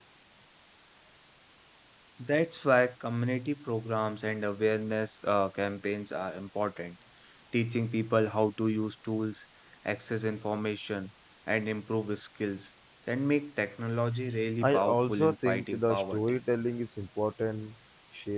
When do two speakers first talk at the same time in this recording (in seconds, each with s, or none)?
14.6 s